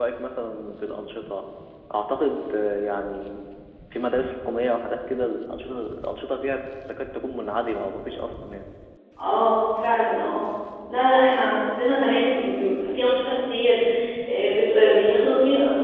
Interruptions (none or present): none